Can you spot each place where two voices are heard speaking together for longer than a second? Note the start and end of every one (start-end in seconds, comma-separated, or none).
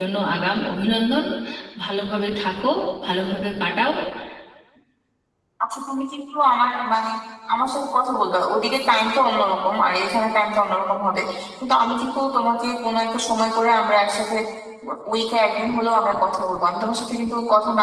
none